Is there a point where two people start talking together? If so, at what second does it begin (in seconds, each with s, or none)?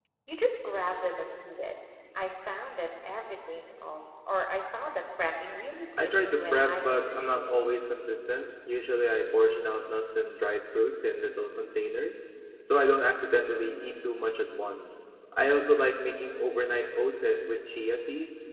6.0 s